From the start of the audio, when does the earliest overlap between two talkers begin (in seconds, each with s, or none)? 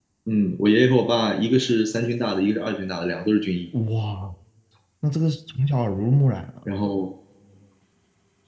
none